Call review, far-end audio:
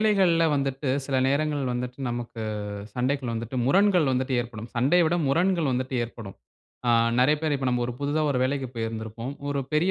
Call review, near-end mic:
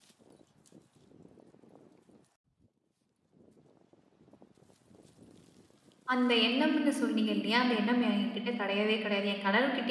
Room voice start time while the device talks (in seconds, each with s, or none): 6.1 s